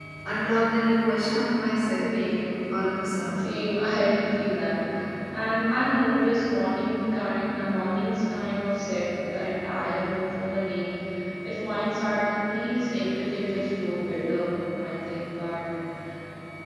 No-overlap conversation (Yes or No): Yes